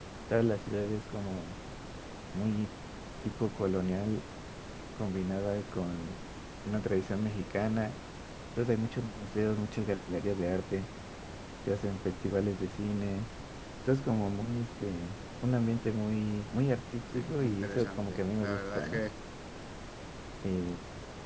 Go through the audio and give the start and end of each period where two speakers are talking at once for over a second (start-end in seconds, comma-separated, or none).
17.1-19.1